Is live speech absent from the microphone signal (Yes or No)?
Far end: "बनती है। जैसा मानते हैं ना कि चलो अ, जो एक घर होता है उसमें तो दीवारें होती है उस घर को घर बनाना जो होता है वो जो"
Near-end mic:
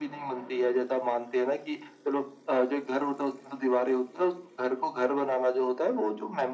Yes